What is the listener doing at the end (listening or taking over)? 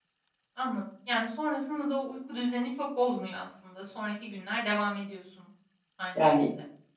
taking over